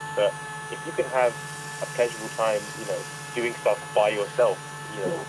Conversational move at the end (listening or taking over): listening